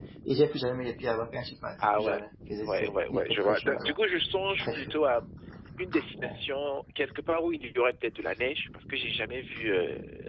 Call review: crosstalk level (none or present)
present